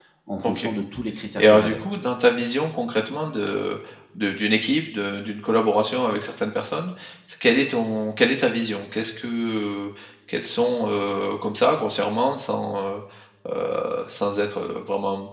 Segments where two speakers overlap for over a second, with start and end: none

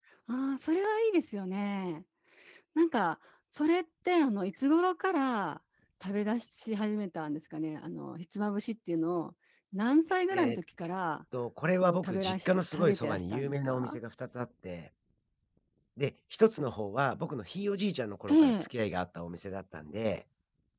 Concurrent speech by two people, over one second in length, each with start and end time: 11.8-14.0

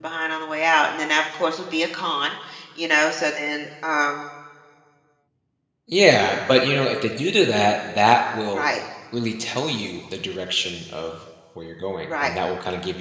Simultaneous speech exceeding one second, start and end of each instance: none

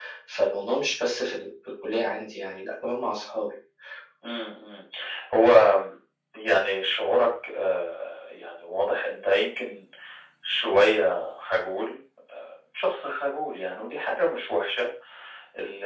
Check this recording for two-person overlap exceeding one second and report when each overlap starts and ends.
none

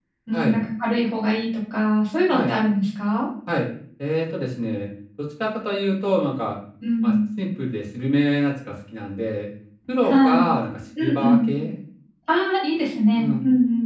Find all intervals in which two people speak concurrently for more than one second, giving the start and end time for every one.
none

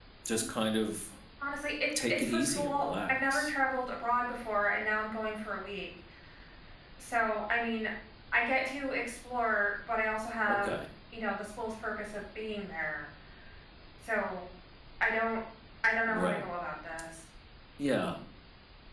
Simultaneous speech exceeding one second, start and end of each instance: 2.1-3.5

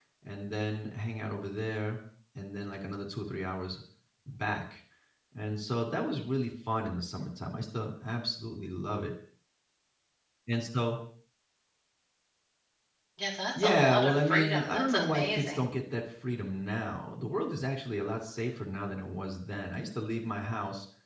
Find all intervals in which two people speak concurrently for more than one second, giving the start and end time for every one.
13.6-15.6

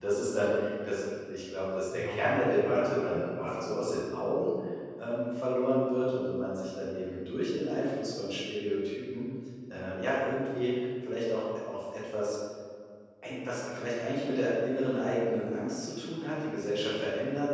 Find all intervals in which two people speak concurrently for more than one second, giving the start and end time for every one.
1.9-3.7

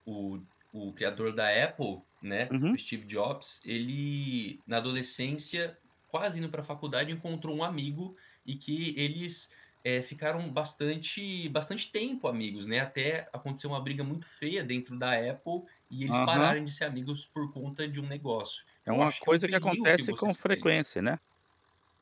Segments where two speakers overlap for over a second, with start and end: 18.9-20.7

